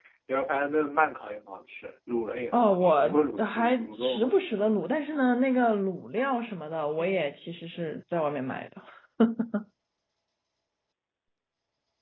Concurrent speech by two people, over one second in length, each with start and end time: 2.5-4.3

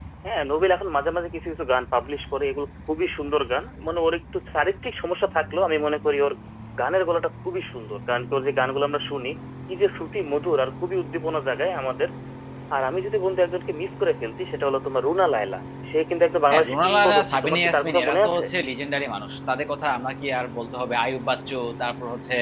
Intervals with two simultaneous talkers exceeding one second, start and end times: 16.5-18.4

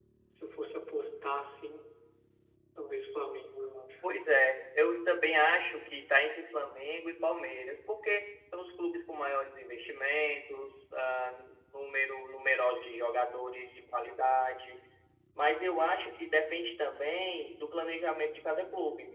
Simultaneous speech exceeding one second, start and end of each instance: none

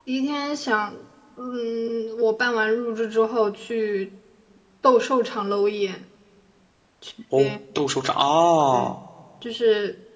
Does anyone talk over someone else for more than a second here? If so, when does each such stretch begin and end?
none

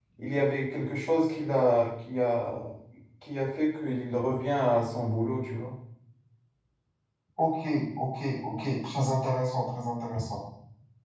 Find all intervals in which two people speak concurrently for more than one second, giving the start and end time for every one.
none

